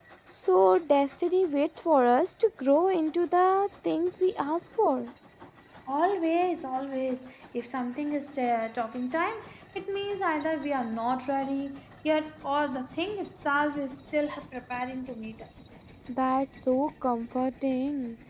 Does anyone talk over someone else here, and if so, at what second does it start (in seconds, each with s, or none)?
none